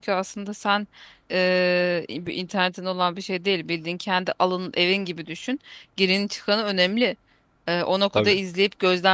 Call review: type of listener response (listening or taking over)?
listening